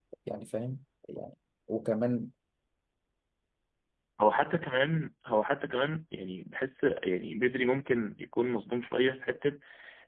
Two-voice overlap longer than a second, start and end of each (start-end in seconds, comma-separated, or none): none